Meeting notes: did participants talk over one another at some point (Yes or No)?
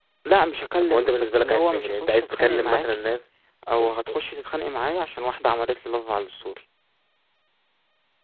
Yes